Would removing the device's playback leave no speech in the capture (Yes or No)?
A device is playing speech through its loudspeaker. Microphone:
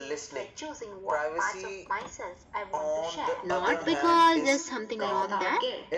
No